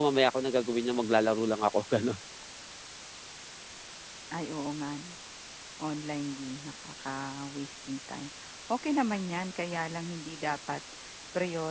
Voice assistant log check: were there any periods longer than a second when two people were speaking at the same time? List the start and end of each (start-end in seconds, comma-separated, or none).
none